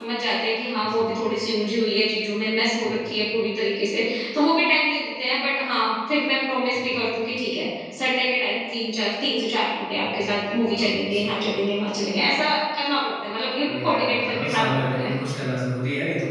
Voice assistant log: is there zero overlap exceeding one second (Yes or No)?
No